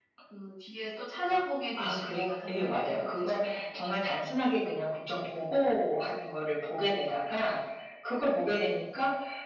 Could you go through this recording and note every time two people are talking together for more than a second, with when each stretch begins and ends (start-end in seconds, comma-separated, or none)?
1.8-4.3